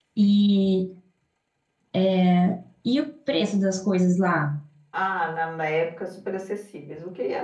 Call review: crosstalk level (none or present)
none